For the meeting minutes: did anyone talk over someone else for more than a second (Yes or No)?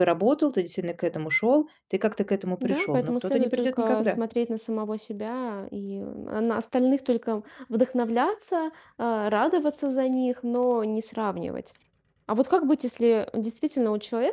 Yes